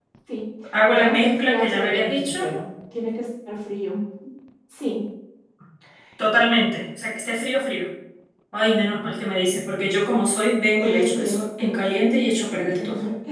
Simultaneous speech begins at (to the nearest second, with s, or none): 1 s